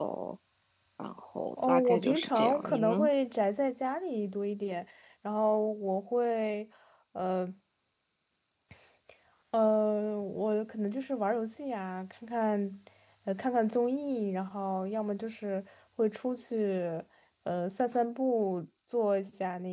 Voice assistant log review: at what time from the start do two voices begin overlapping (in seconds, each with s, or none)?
1.7 s